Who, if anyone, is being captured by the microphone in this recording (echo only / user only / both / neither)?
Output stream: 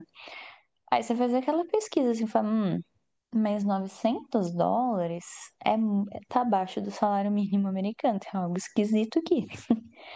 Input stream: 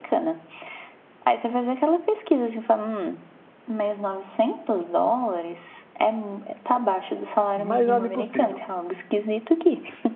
both